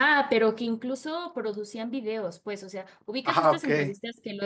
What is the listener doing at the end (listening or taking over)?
listening